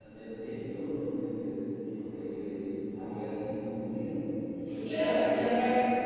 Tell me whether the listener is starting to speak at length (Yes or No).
Yes